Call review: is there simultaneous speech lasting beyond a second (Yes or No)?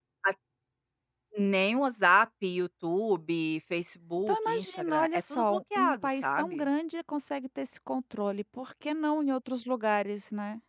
Yes